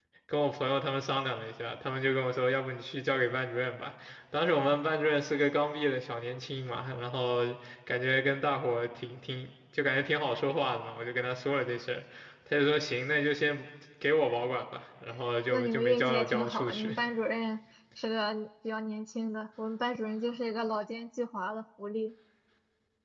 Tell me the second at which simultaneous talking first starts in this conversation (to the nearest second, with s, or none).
16 s